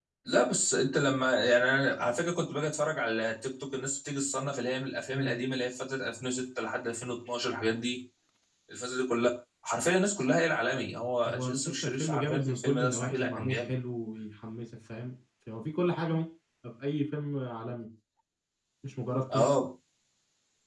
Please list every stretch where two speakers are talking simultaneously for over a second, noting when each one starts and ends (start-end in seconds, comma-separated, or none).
11.3-13.7